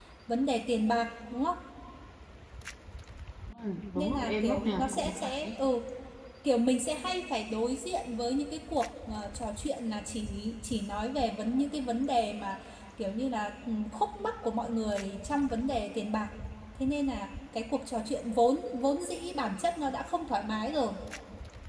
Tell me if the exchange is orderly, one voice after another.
No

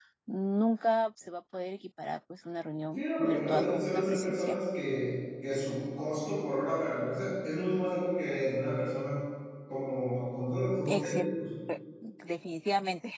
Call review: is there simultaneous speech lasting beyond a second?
Yes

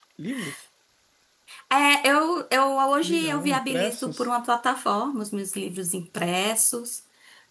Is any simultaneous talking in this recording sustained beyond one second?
Yes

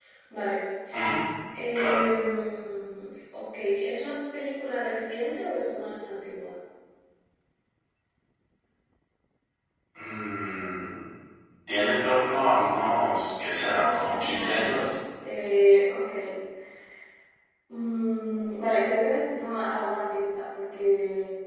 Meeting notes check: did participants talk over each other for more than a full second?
Yes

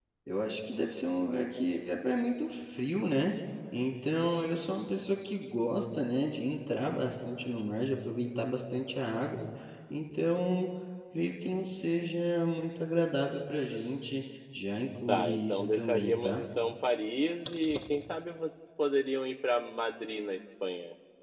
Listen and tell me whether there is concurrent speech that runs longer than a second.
Yes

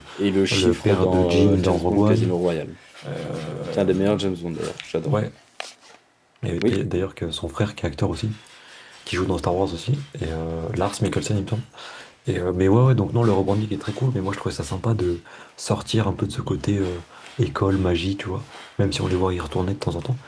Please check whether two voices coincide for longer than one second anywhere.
Yes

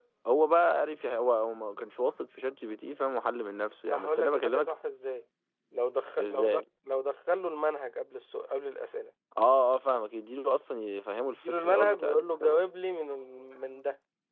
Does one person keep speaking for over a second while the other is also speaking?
Yes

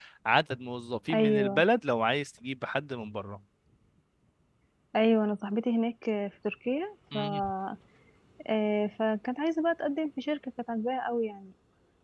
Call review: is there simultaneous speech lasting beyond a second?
No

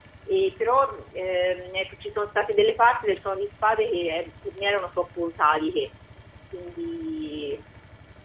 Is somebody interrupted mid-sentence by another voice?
No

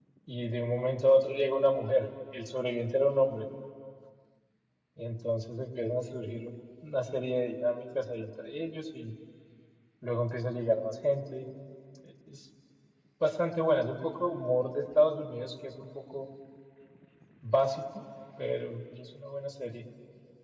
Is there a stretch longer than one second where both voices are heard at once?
No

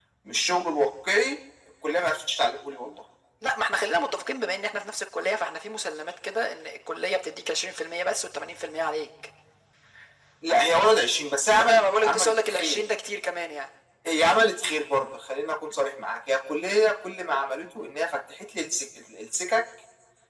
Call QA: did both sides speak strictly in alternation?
No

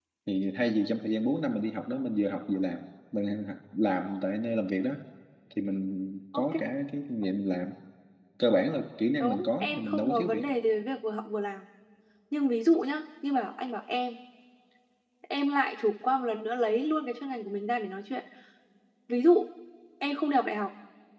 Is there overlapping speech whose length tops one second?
Yes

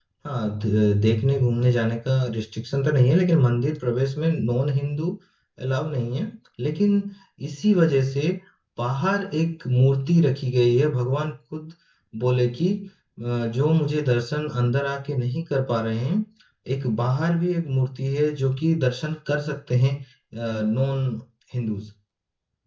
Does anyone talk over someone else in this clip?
No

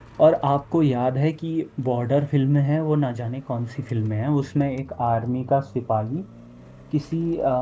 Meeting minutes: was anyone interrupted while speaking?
No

